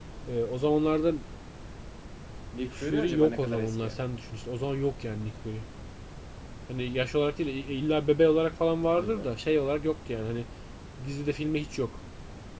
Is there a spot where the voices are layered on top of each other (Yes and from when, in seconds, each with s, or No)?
Yes, from 2.6 s